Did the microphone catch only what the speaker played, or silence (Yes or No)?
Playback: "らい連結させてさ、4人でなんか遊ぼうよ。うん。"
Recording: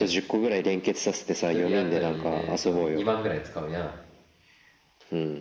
No